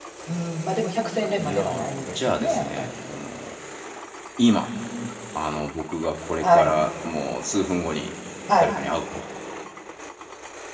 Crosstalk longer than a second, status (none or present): present